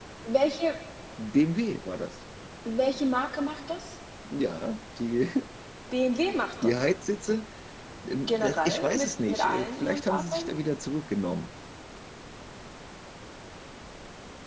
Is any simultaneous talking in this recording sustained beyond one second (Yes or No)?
Yes